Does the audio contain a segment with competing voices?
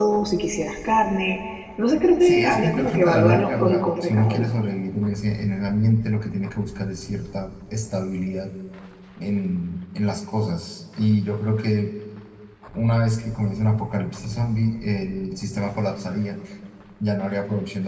Yes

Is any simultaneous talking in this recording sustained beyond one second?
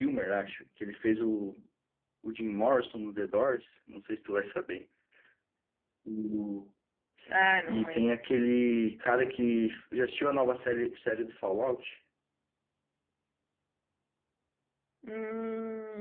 No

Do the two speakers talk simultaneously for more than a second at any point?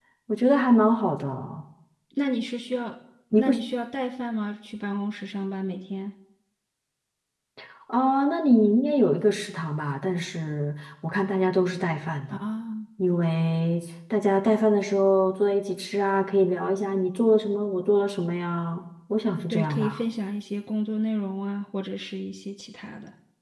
No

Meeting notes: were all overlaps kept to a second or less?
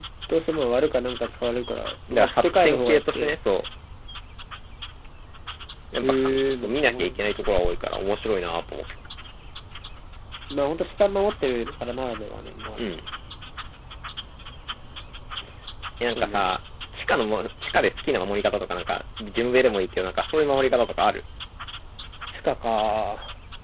No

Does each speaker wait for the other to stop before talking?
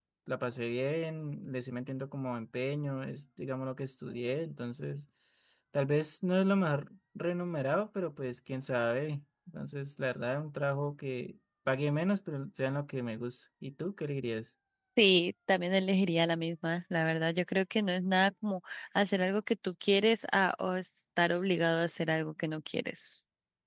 Yes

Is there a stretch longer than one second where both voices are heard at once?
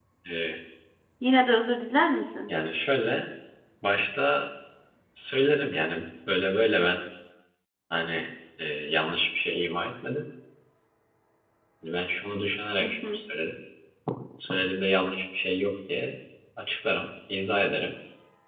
No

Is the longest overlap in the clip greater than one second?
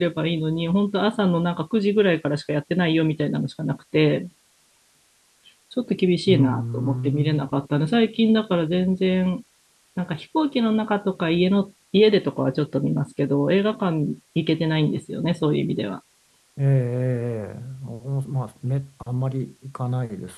Yes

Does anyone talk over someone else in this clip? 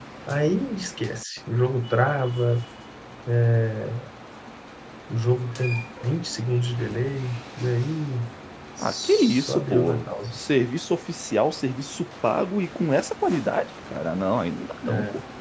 Yes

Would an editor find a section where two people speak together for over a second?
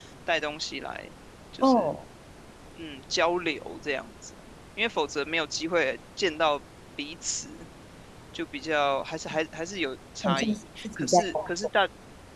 Yes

